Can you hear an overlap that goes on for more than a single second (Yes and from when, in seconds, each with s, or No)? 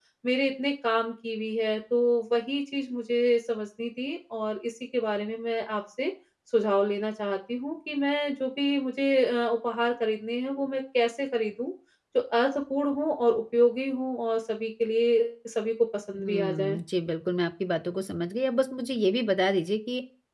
No